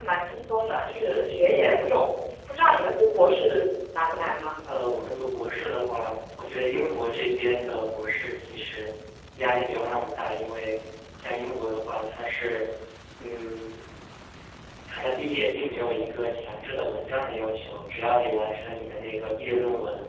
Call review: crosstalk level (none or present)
none